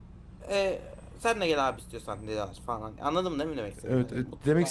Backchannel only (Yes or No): No